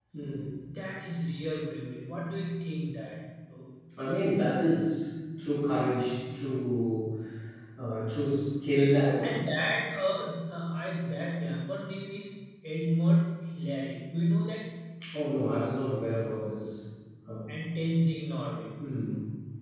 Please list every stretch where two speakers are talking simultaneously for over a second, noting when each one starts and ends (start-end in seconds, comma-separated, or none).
none